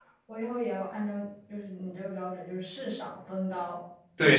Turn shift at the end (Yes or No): Yes